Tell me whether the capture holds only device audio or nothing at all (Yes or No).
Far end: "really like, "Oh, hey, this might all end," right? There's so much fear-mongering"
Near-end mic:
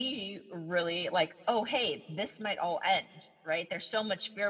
Yes